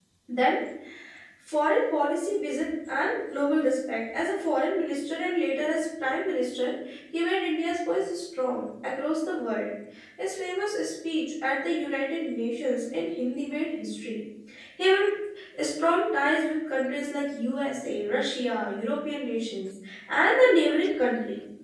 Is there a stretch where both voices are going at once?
No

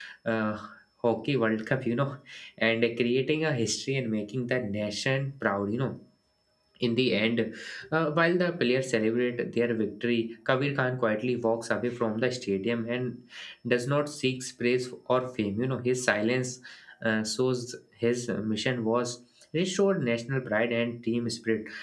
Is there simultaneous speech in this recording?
No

